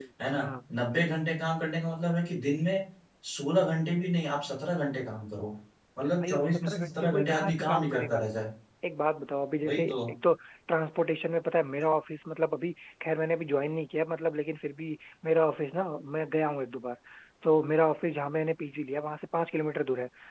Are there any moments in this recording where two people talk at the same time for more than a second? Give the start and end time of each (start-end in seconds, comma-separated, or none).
6.2-8.3